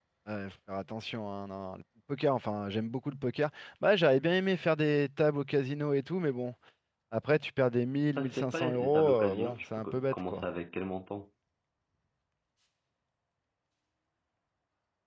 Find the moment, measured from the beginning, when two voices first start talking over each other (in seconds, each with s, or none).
8.2 s